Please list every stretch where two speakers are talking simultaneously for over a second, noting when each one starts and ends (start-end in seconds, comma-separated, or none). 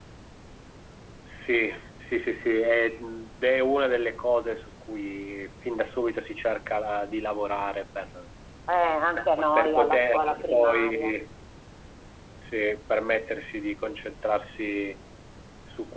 9.6-11.1